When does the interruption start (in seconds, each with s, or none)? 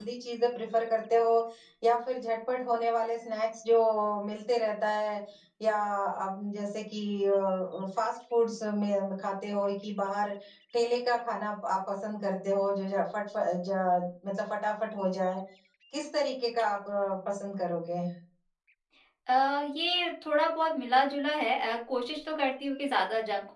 none